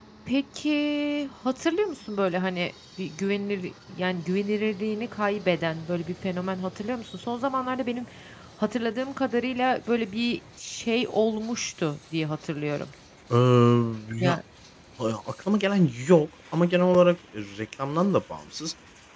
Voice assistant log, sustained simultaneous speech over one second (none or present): none